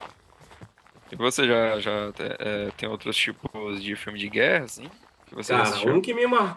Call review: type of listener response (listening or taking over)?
taking over